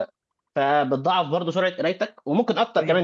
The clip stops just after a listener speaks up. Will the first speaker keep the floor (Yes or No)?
Yes